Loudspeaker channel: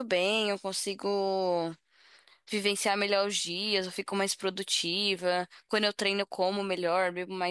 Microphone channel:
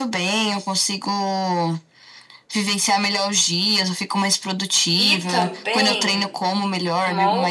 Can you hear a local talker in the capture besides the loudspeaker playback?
Yes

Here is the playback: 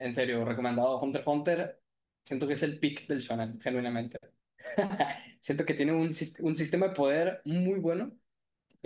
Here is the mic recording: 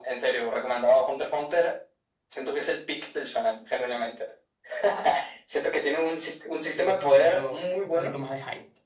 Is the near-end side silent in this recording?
No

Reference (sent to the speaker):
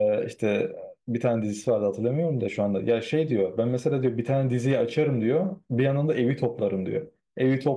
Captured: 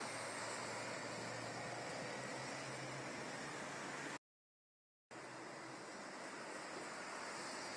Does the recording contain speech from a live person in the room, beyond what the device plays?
No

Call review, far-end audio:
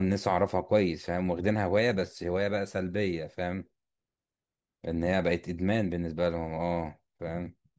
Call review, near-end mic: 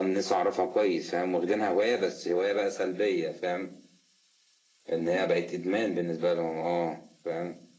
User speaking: No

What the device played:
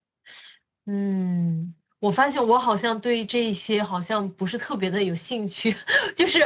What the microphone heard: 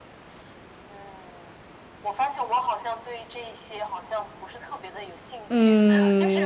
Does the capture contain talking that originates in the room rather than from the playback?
Yes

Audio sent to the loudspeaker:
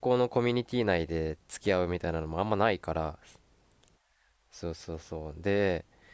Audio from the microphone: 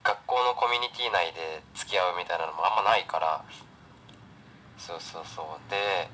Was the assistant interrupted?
No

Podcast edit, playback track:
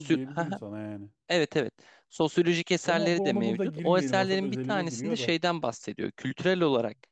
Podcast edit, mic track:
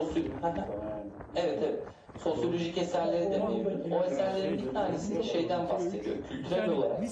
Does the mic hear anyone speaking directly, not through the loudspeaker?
Yes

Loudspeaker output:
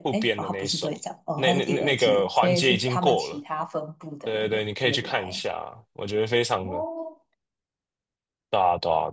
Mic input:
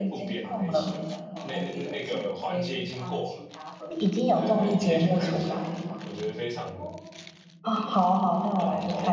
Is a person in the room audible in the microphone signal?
Yes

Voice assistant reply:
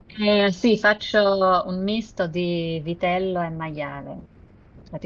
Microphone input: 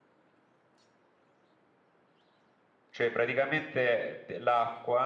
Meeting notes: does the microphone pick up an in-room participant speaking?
Yes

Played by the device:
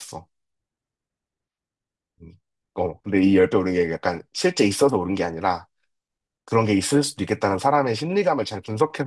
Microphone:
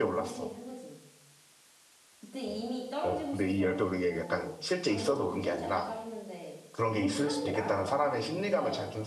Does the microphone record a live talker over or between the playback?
Yes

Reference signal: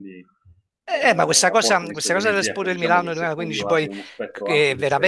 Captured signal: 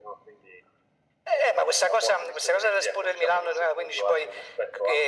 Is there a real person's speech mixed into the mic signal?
No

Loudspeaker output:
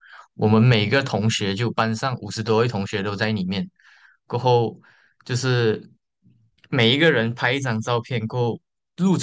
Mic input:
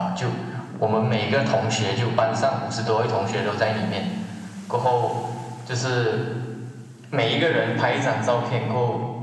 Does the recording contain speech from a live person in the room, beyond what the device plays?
No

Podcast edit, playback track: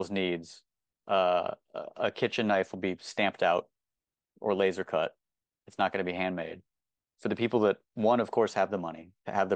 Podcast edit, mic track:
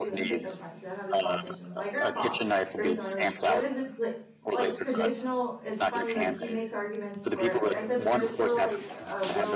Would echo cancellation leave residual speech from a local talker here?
Yes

